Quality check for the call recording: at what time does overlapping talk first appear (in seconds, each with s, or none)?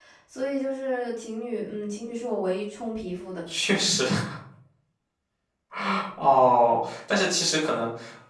none